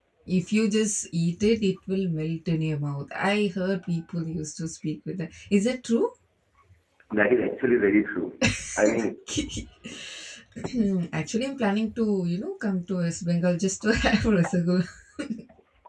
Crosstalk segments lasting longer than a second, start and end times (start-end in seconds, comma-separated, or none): none